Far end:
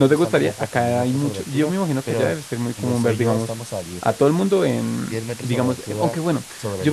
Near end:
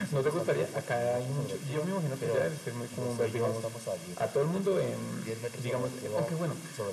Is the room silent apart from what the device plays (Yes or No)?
Yes